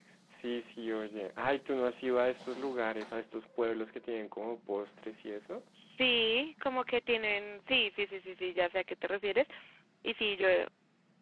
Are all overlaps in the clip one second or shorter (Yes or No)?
Yes